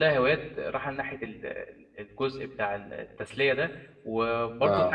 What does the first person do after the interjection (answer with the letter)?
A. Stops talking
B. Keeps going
B